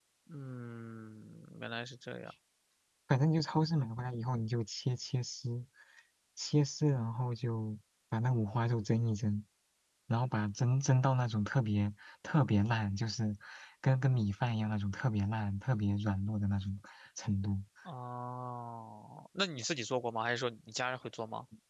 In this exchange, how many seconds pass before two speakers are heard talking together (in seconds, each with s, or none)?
none